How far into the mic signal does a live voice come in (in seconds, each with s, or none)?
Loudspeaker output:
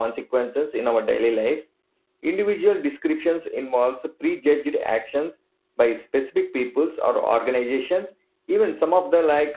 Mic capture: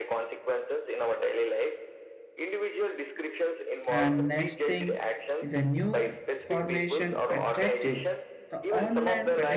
3.9 s